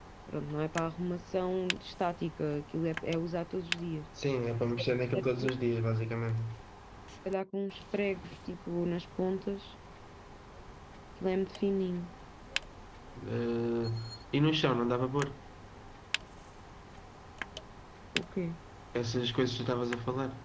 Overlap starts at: none

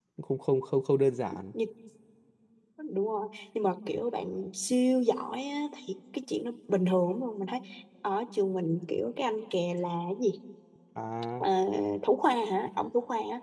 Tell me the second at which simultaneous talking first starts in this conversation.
none

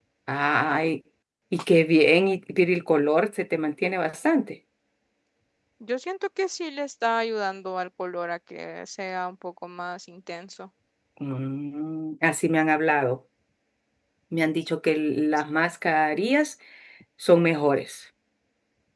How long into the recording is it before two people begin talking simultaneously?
none

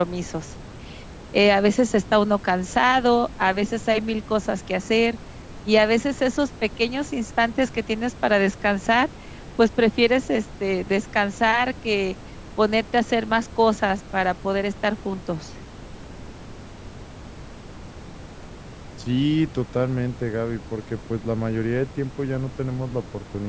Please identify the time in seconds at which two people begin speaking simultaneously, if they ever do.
none

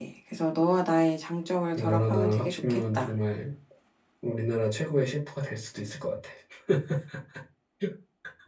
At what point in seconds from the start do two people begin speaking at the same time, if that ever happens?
2 s

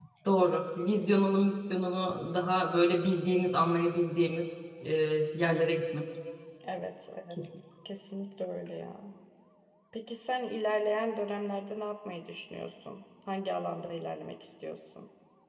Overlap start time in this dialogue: none

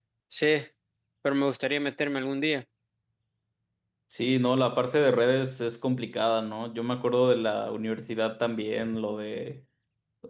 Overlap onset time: none

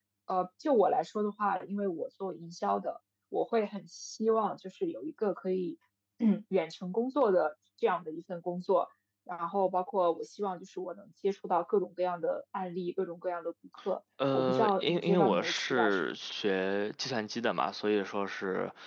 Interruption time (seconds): 14 s

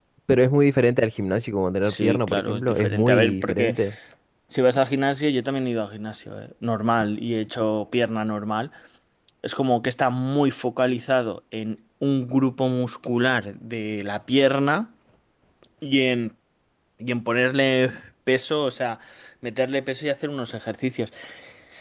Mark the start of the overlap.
2 s

